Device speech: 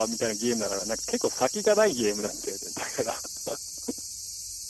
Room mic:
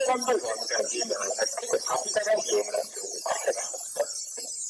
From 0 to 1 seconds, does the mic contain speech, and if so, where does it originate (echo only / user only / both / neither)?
echo only